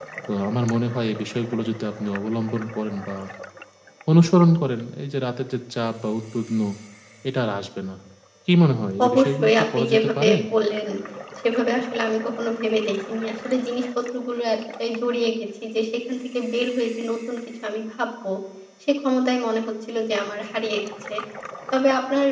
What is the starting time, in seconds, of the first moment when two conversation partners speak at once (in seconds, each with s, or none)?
9.1 s